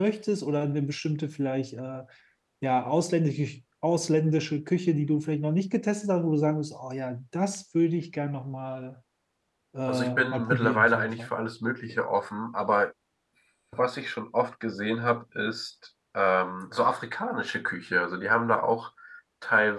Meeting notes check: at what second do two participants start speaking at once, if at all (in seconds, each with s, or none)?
9.9 s